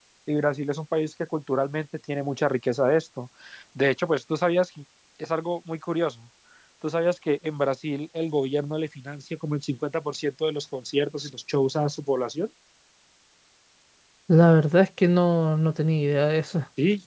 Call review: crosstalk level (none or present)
none